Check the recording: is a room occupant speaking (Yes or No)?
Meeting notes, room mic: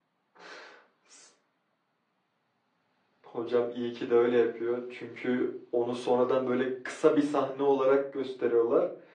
No